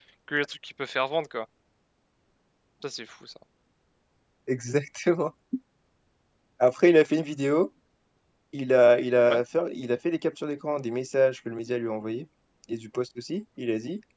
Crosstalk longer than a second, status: none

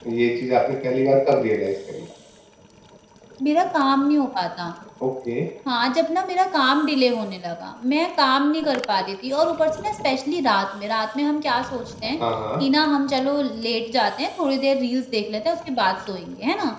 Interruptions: none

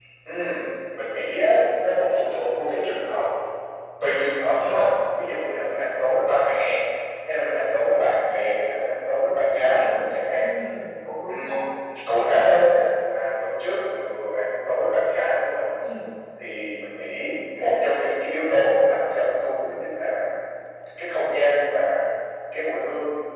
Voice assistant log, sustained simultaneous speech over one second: none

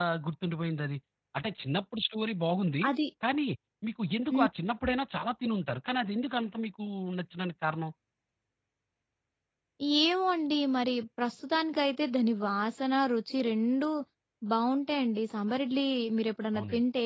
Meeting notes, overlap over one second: none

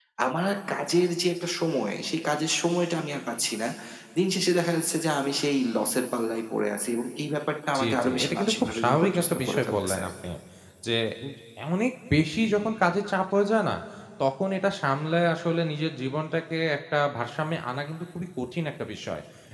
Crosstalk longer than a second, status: present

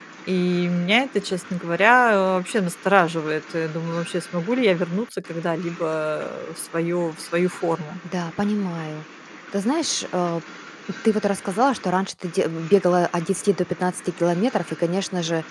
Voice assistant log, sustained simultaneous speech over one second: none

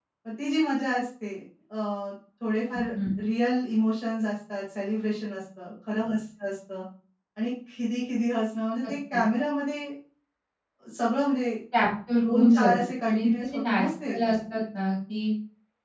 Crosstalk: present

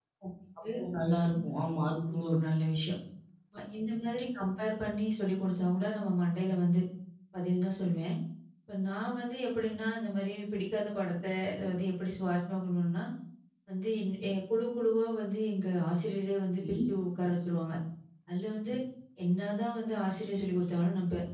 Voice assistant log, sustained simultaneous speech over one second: none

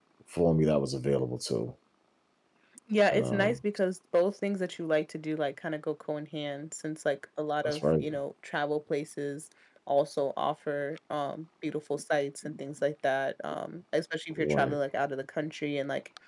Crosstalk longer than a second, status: none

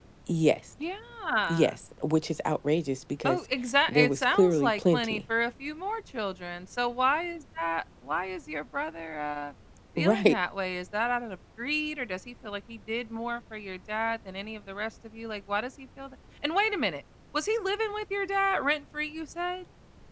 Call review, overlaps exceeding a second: present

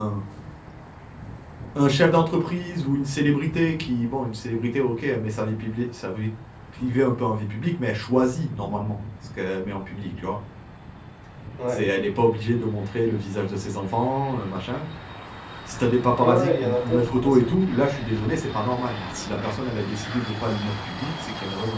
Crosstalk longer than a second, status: present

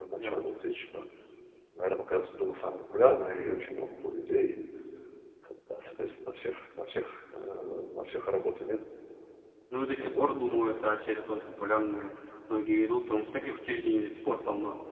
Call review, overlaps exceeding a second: none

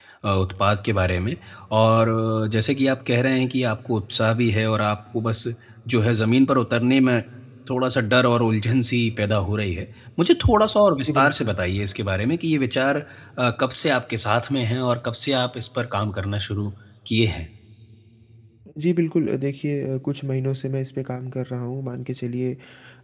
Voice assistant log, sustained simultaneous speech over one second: none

